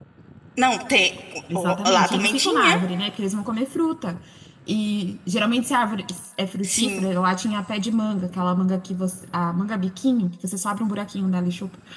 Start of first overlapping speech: 1.6 s

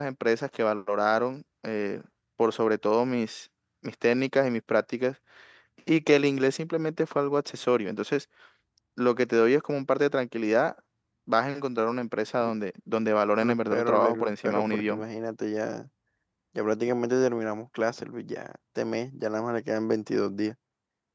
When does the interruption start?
13.4 s

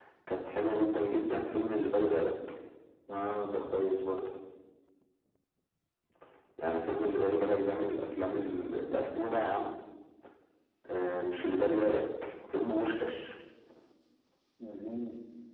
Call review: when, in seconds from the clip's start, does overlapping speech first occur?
none

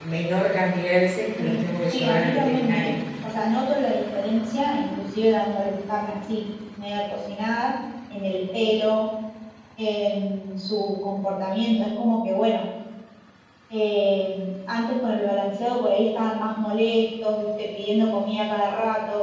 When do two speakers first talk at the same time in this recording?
1.4 s

